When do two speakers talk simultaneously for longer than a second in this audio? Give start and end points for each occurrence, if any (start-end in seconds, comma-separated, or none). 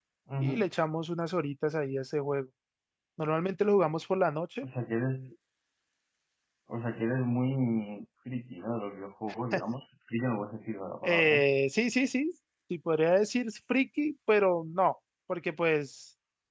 none